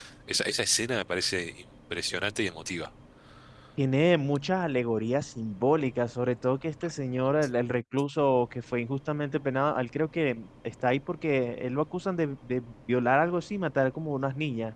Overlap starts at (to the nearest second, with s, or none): none